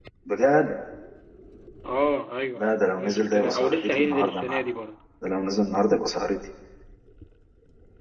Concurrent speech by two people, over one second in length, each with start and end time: 2.6-4.6

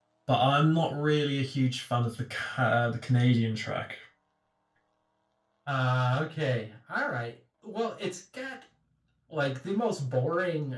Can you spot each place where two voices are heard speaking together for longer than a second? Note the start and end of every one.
none

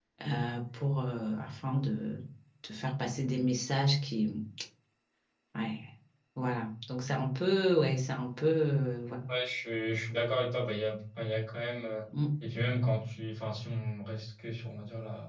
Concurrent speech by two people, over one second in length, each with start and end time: none

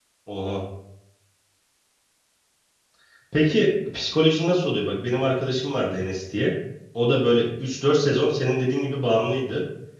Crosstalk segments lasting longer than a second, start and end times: none

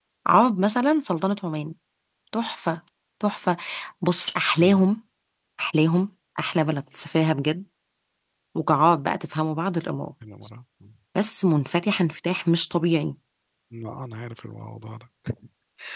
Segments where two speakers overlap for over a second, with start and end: none

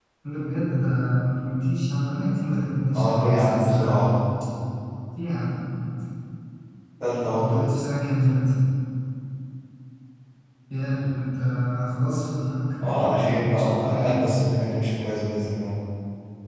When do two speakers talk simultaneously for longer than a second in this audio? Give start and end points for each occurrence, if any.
3.0-4.2, 12.8-14.2

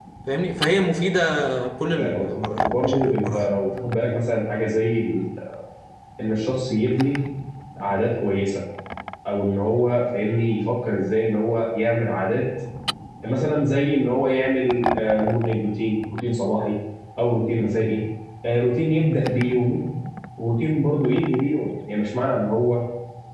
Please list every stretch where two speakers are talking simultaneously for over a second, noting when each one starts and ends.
2.0-3.5

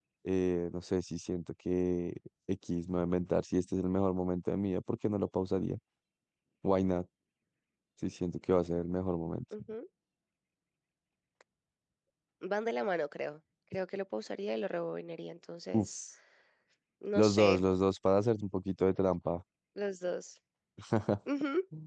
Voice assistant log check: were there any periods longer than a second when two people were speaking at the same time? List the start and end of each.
none

